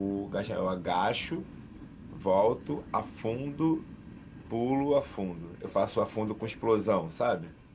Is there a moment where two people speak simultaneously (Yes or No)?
No